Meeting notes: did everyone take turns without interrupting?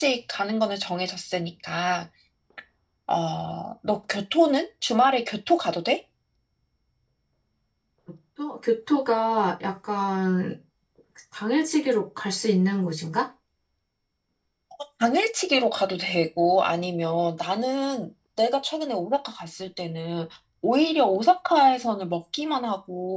Yes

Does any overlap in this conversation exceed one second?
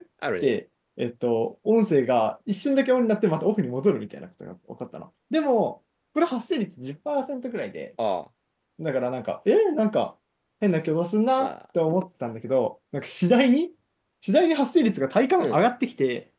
No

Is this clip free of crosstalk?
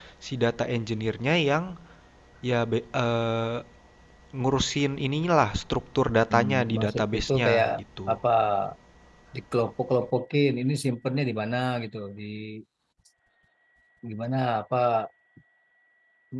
No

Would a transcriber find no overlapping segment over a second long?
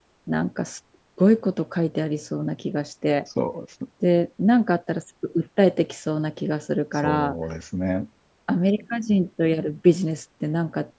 Yes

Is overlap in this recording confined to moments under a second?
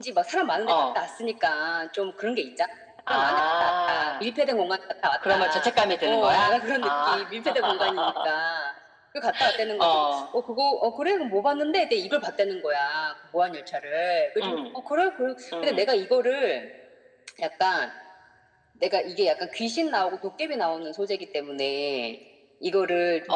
No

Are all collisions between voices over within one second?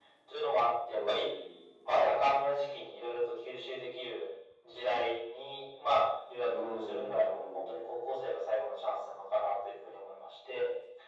No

